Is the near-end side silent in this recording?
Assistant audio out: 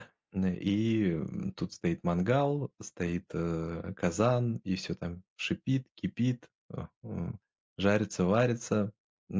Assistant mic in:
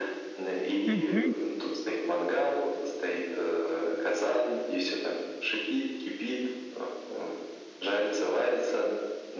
No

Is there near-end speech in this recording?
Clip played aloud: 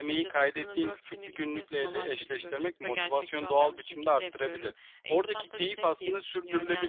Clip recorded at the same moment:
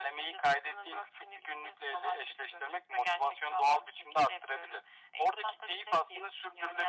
No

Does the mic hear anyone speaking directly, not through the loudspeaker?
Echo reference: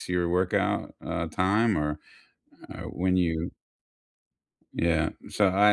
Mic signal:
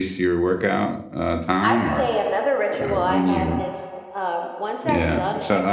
Yes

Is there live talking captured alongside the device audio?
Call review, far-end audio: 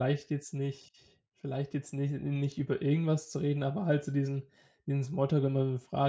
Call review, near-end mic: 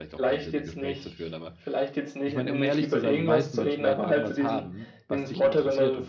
Yes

